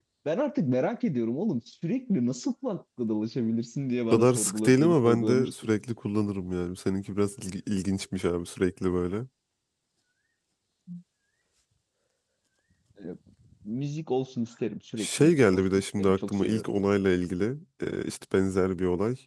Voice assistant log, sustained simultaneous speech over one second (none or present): present